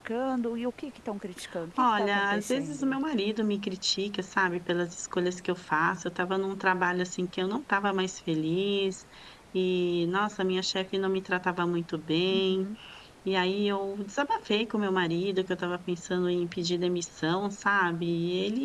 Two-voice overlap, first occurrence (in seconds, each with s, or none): 1.8 s